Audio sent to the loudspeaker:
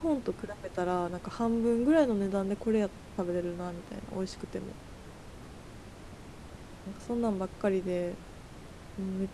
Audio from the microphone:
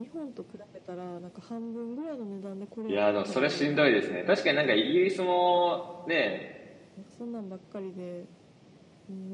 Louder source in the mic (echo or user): user